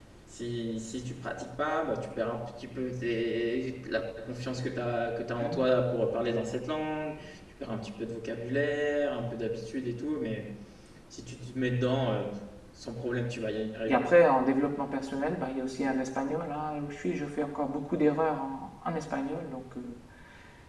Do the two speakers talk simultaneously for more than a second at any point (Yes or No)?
No